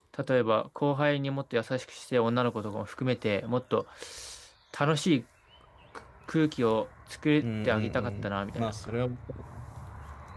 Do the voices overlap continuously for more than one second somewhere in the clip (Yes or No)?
Yes